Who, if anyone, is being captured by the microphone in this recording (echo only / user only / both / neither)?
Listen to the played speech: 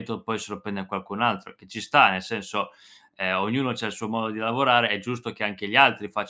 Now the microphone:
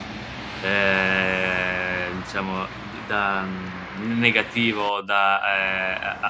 user only